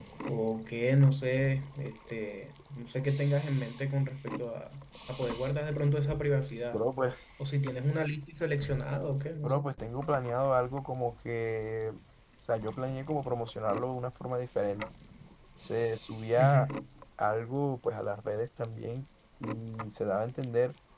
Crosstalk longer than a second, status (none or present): none